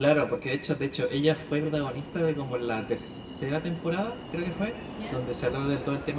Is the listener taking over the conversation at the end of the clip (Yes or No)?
No